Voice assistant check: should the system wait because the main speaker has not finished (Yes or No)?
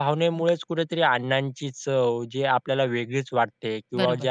Yes